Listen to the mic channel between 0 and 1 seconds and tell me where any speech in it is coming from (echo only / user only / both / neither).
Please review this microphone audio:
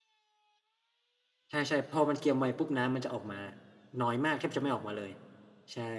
neither